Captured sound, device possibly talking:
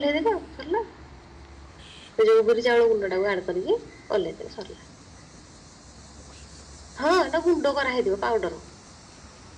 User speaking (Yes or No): No